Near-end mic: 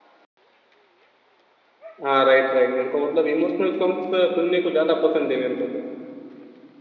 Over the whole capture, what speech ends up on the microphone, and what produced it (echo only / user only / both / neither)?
user only